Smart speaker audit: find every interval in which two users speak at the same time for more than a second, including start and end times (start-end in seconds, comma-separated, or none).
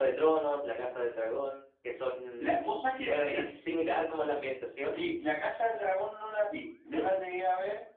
none